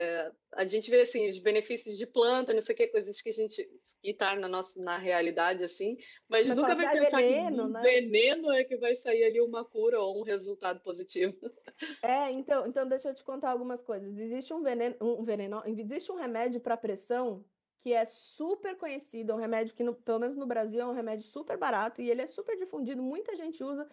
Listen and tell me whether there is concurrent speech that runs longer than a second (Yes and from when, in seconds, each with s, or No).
Yes, from 6.4 s